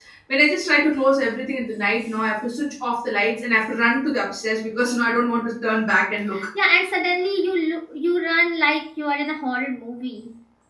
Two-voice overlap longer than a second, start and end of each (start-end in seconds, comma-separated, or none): none